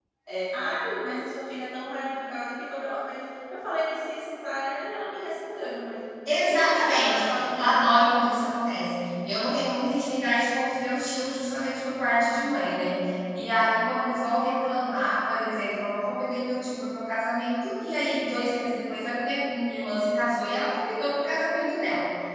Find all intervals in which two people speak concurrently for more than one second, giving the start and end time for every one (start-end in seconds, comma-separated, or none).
6.3-7.8